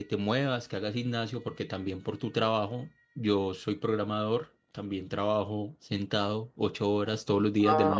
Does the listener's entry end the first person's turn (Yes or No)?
Yes